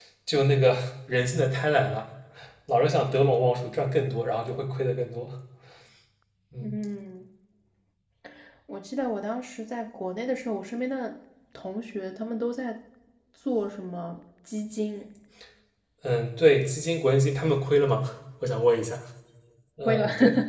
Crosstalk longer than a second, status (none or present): none